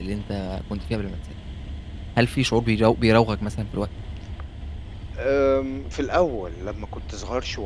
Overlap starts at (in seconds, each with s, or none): none